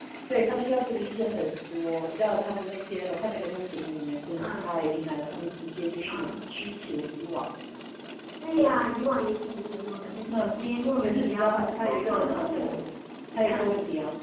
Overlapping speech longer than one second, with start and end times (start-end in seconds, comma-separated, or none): 11.0-12.8